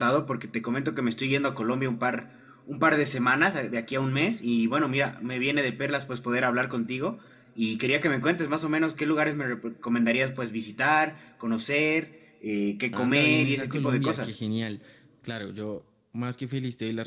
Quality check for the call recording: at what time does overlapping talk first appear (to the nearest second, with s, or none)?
13 s